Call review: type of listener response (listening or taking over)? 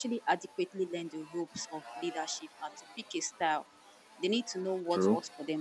listening